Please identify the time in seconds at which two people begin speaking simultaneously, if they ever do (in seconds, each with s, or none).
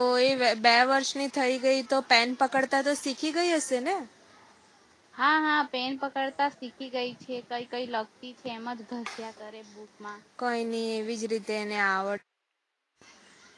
none